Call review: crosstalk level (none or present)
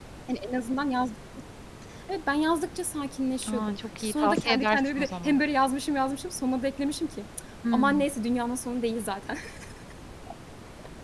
present